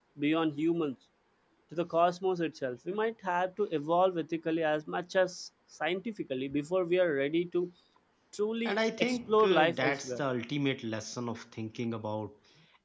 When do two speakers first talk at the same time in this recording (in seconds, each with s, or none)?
8.7 s